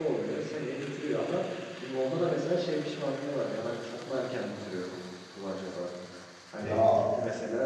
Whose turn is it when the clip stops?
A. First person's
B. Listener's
A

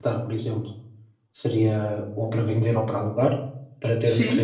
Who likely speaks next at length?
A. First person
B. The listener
B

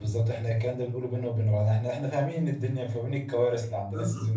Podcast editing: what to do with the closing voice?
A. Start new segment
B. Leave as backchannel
A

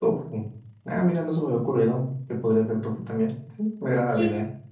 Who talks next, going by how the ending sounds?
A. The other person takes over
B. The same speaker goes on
A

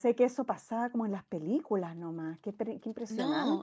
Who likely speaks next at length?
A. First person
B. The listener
B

